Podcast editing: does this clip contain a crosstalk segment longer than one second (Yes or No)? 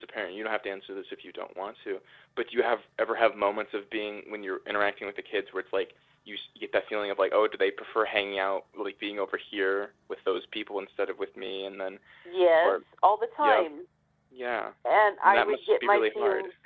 Yes